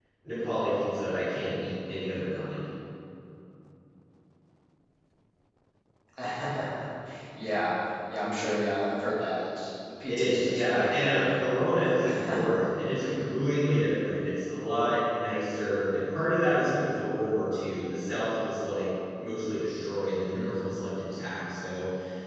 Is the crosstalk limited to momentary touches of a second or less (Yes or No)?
No